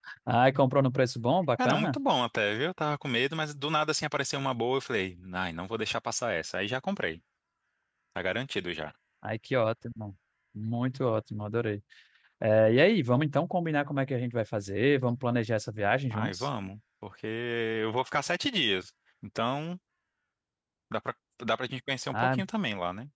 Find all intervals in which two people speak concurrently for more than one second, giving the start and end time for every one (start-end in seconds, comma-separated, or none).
none